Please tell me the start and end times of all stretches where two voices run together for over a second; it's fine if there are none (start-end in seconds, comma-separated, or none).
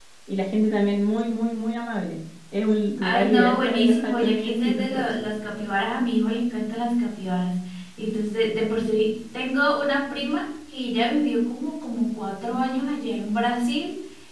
3.0-5.1